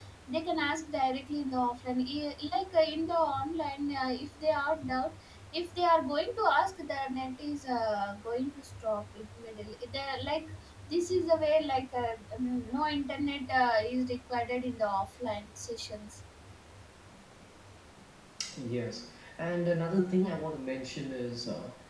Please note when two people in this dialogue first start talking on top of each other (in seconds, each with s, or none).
none